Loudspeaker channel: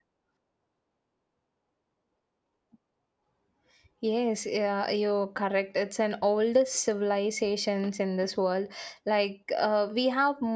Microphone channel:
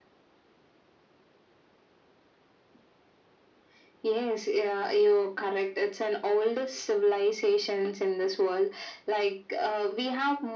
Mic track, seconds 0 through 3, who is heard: neither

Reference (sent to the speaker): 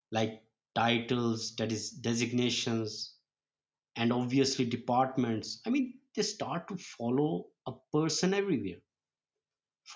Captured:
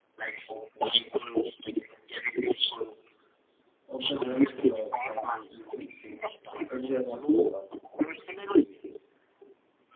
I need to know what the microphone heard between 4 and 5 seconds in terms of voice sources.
both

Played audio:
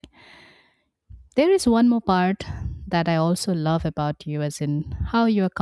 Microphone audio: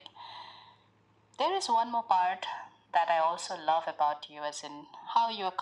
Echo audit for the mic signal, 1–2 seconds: echo only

